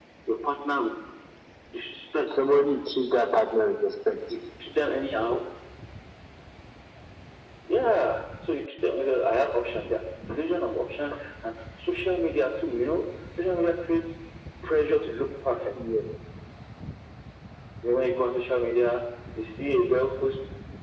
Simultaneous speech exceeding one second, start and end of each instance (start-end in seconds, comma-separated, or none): none